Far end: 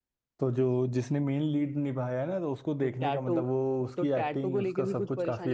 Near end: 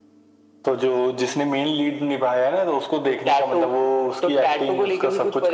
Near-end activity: none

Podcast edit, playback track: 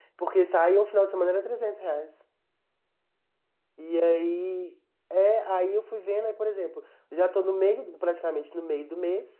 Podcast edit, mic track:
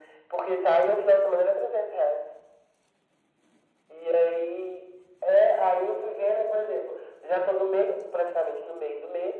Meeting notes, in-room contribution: none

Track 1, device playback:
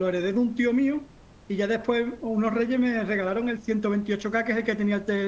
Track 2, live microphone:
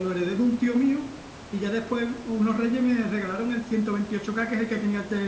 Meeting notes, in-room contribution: none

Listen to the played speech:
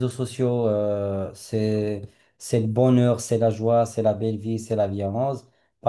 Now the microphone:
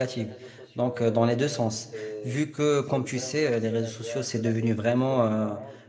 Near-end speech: present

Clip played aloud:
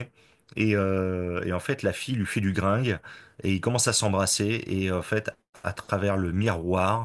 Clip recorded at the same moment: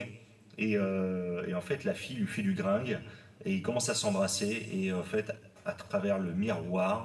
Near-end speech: none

